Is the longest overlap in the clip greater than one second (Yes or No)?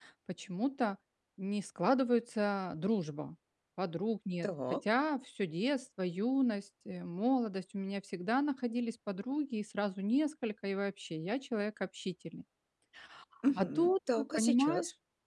Yes